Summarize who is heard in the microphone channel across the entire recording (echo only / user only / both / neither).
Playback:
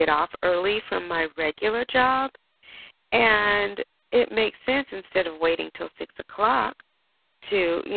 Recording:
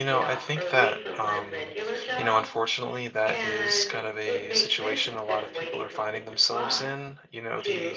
both